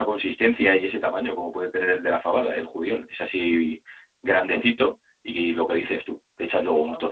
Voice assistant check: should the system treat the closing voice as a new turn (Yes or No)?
No